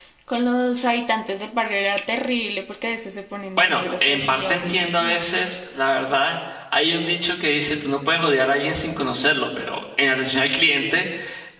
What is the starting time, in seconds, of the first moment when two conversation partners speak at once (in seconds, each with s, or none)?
3.6 s